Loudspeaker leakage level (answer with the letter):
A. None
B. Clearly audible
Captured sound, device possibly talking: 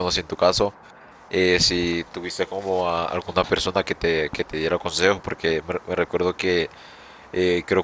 A